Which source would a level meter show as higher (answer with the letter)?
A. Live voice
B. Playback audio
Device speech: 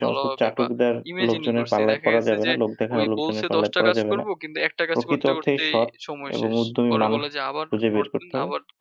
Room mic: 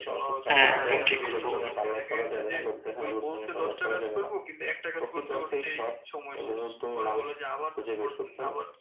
A